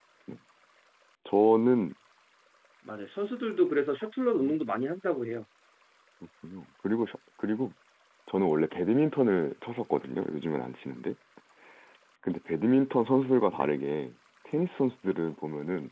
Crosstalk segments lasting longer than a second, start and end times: none

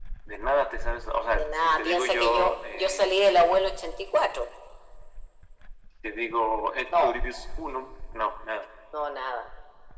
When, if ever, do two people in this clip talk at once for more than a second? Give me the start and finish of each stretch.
1.3-3.2

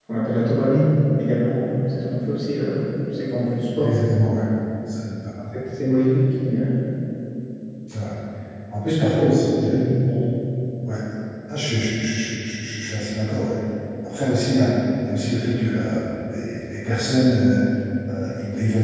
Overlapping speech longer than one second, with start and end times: none

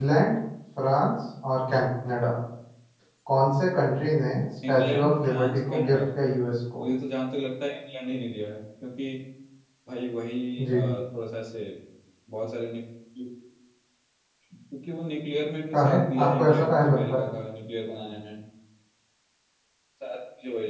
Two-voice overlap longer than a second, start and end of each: 4.7-6.0, 15.7-17.2

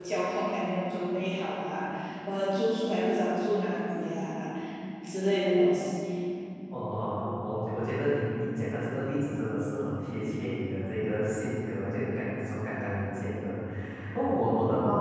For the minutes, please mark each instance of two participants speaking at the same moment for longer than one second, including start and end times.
none

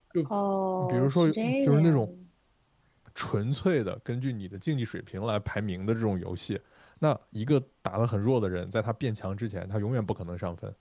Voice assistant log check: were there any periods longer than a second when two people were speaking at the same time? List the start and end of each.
0.9-2.1

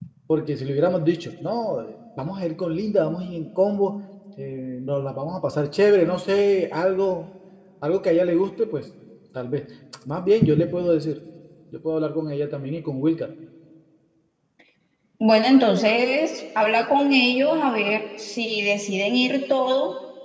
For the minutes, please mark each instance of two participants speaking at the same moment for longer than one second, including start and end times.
none

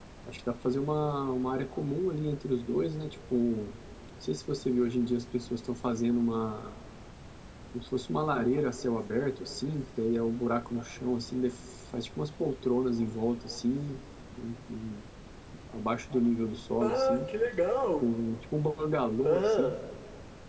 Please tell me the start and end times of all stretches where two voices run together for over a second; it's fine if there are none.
none

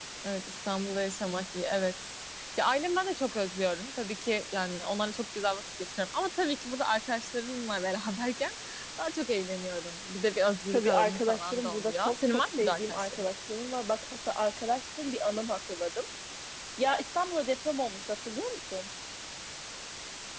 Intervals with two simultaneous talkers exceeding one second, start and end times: 10.7-13.2

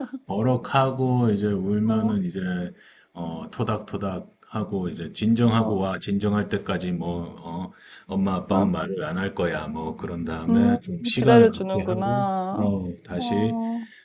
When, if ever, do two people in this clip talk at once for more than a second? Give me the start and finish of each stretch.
11.2-12.7

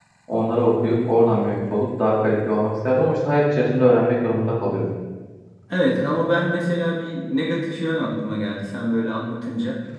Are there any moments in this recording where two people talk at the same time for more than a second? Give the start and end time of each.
none

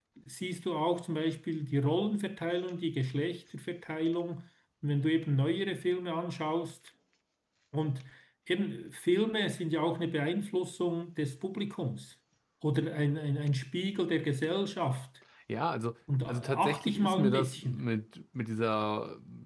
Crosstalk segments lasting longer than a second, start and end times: 16.3-17.8

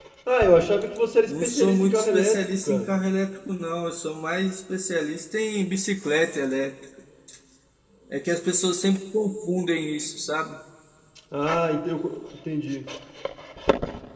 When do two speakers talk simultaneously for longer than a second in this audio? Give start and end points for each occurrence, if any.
1.3-2.9

